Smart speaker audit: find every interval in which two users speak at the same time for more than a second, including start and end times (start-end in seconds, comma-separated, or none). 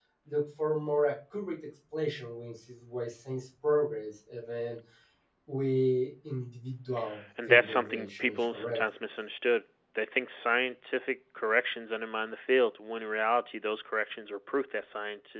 7.5-8.8